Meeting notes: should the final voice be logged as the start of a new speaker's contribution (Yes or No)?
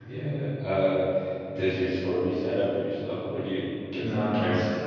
Yes